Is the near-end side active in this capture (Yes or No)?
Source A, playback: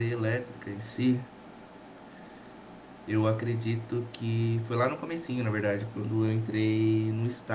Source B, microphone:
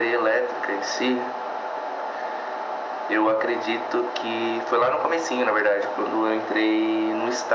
No